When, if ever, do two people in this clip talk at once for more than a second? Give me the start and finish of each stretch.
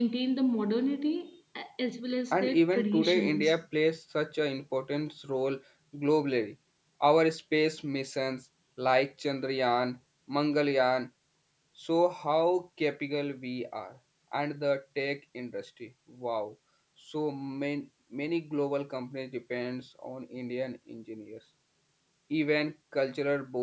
2.3-3.6

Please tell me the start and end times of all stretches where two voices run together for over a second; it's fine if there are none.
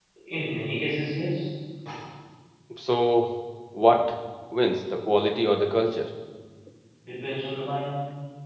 none

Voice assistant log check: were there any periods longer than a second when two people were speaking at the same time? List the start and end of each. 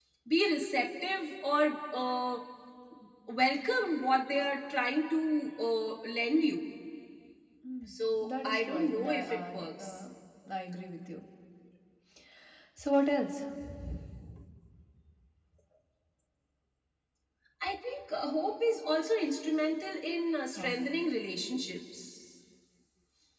8.3-9.9

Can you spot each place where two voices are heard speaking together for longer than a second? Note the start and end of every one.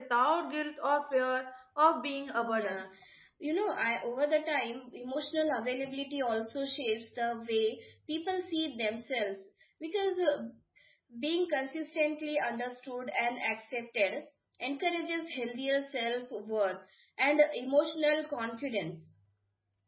none

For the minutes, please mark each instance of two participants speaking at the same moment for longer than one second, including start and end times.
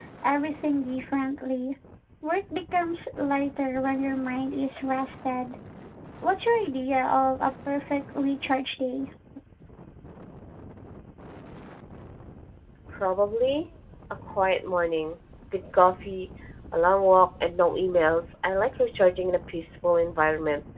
none

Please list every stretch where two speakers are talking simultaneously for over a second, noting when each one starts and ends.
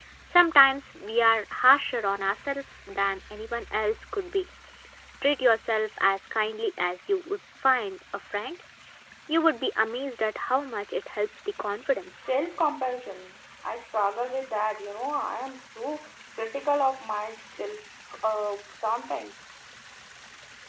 none

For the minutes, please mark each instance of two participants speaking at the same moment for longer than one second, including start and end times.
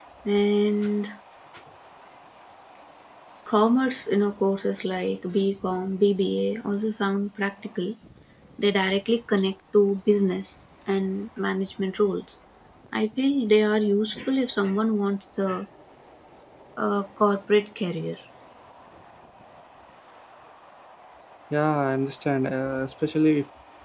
none

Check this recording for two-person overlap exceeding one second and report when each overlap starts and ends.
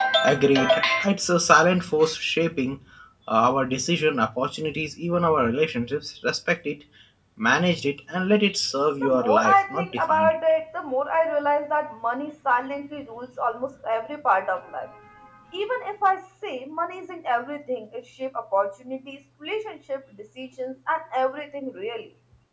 9.0-10.3

